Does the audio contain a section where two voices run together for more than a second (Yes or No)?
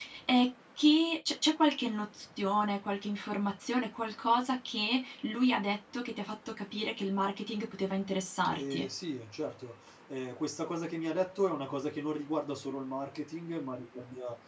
No